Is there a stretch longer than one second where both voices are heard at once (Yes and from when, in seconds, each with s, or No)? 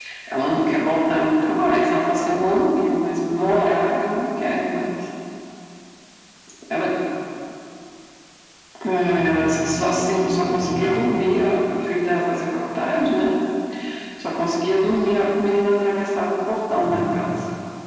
Yes, from 9.1 s